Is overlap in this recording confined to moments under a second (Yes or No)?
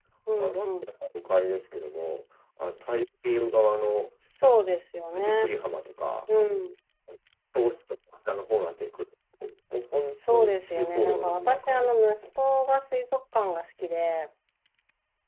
No